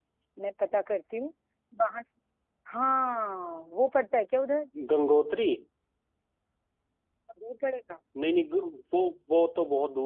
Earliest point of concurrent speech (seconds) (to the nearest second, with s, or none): none